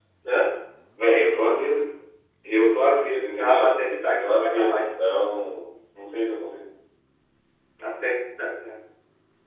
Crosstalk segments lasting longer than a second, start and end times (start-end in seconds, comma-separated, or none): 3.4-4.9